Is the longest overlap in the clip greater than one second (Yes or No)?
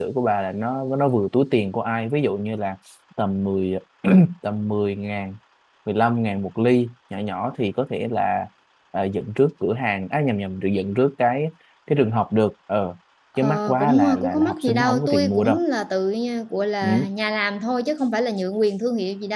Yes